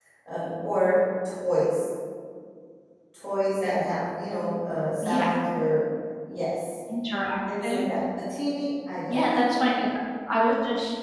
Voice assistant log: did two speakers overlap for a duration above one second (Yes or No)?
No